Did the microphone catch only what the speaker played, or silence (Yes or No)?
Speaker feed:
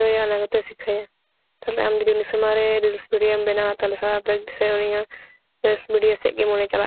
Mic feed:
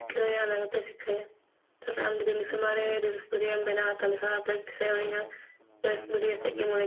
No